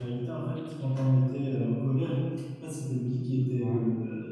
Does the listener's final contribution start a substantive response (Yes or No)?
No